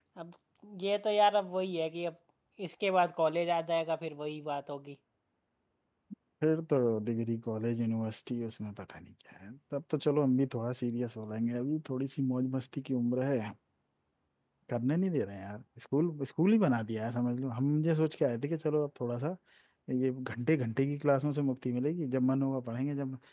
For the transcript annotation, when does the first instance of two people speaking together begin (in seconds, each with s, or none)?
none